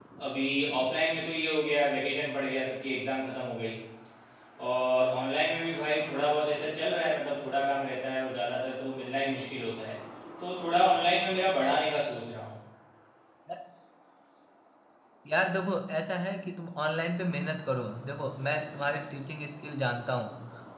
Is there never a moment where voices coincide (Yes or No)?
Yes